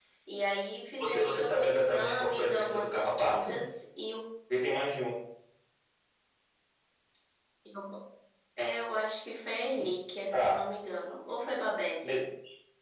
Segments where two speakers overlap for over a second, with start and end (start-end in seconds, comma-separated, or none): 1.0-3.5